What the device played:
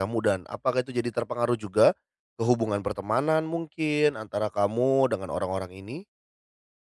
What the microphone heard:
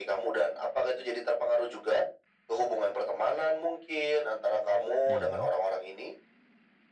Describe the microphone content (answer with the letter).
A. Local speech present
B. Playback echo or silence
A